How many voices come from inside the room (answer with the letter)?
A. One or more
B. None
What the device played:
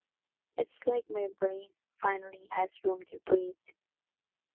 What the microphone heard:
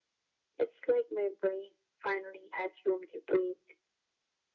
B